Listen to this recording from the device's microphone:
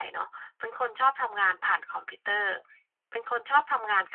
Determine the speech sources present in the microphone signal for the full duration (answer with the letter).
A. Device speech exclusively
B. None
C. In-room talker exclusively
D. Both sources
A